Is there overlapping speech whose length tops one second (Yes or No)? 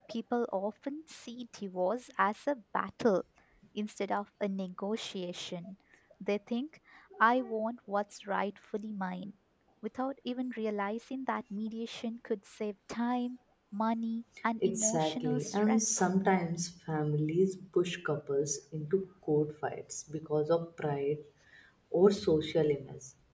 Yes